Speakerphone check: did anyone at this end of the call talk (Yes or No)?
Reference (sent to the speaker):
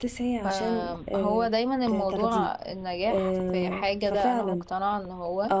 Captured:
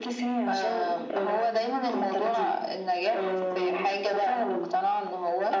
No